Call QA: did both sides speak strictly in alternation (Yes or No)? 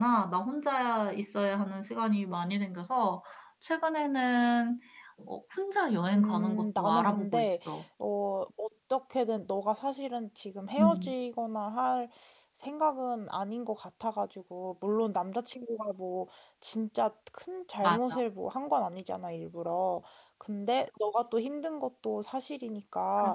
No